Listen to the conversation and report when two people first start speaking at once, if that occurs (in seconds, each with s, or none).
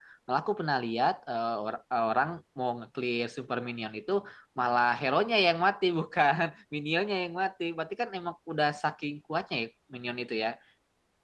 none